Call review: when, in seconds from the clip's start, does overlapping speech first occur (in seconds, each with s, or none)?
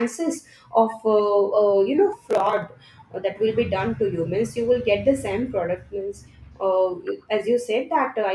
none